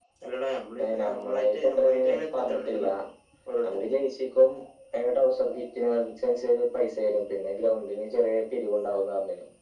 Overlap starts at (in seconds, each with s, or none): 0.8 s